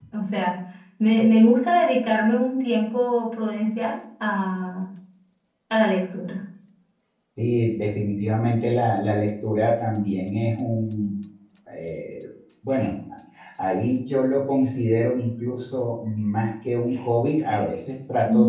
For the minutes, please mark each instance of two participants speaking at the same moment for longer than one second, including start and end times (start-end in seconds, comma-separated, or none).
none